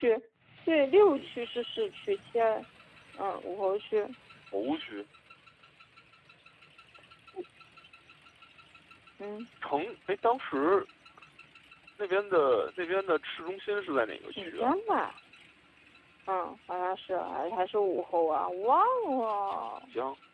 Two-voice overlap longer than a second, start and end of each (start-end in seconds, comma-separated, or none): none